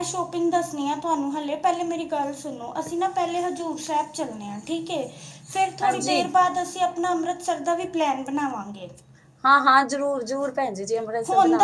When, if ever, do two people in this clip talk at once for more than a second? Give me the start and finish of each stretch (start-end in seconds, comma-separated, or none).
none